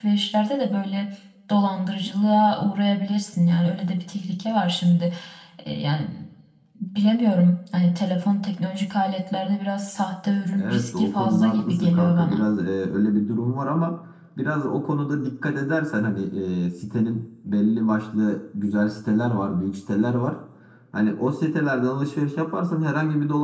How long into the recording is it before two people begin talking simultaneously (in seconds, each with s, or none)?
10.6 s